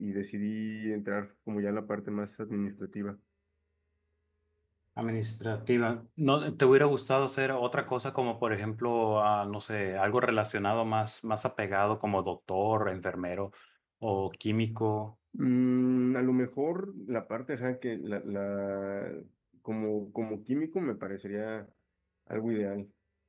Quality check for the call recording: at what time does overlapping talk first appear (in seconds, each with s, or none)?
none